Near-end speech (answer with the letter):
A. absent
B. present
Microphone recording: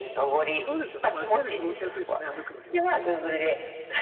B